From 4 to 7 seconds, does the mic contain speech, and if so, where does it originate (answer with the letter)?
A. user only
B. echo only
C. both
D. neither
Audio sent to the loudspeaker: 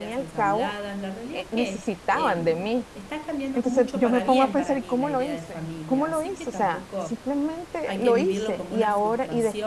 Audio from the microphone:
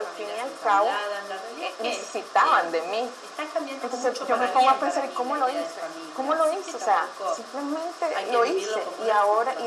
B